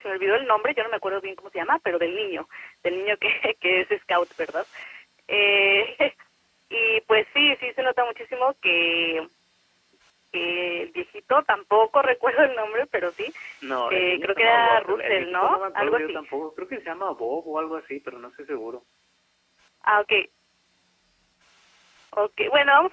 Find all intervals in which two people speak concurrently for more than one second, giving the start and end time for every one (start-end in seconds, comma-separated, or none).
13.9-16.2